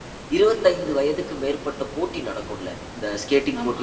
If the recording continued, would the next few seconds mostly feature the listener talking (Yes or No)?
No